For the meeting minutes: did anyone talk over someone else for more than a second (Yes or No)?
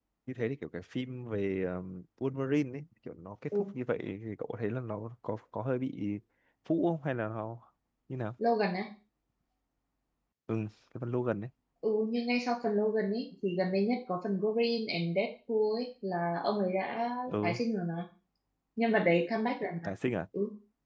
No